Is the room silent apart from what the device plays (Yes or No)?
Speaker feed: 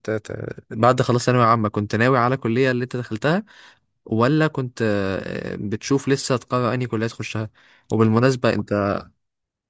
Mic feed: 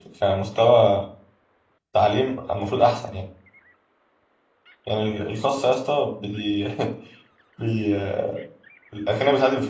No